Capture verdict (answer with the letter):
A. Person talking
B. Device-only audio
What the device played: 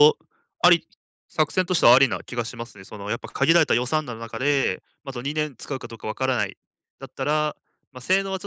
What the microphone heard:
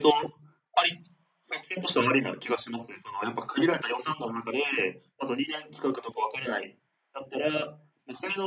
B